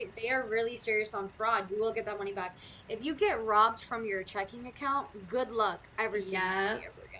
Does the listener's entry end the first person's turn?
Yes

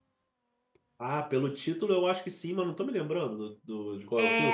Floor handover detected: Yes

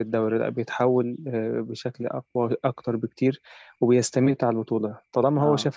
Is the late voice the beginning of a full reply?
No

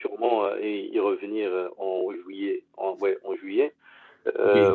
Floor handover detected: No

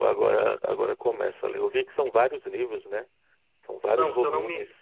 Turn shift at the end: Yes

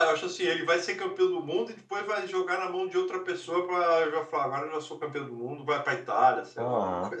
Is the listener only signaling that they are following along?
No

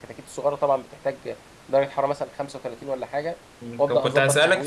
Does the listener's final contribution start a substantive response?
Yes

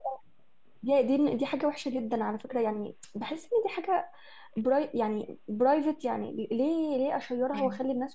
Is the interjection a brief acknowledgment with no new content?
Yes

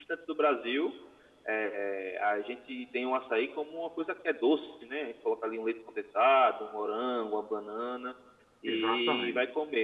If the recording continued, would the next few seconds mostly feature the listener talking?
No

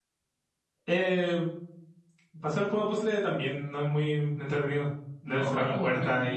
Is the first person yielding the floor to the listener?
Yes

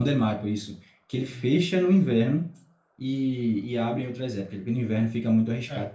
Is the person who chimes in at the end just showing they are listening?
No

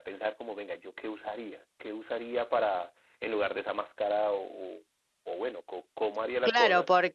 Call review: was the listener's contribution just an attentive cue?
No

